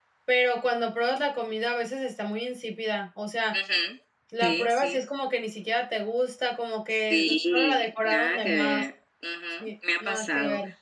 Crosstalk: present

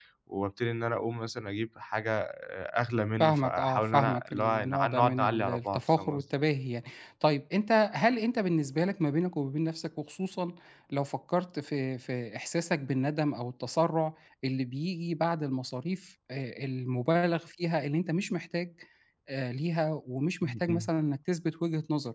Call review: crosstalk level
present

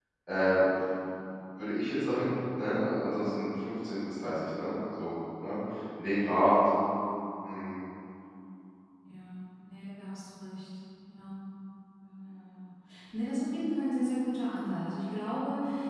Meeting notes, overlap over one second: none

